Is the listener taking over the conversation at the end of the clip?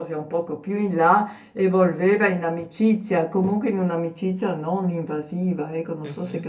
Yes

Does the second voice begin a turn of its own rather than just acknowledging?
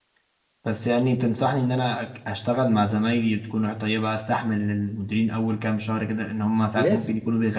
No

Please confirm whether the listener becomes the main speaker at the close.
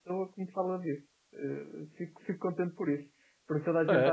No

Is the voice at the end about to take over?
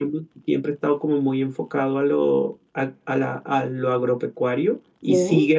No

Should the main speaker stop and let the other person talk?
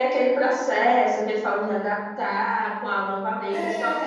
No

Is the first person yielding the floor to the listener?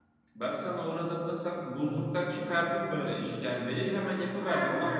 Yes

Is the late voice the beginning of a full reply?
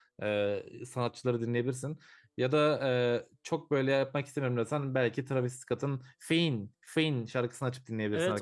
Yes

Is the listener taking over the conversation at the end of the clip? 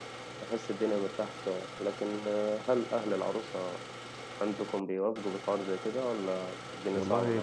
Yes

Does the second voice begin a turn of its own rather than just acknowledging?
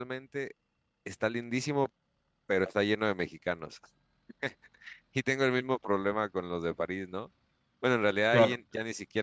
No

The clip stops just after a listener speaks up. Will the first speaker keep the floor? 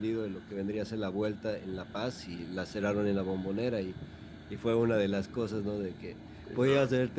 Yes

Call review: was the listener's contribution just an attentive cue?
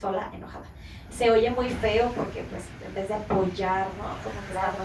Yes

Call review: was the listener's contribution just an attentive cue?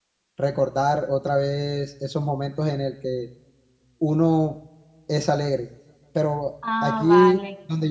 Yes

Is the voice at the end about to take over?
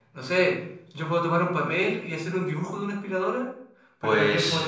No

